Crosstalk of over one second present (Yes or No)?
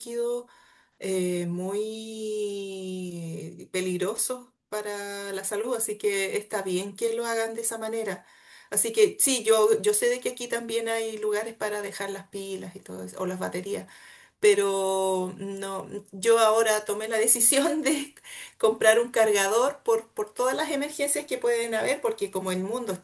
No